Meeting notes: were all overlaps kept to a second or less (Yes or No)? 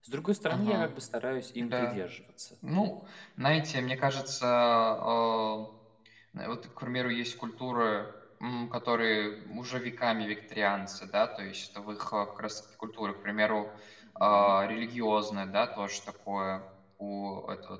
Yes